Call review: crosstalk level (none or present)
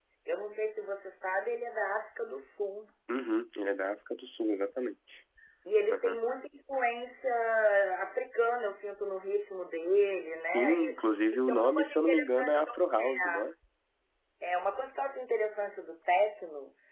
present